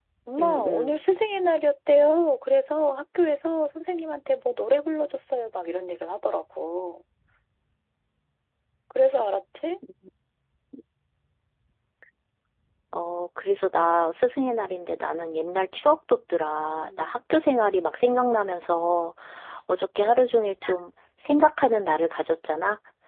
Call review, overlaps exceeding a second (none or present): none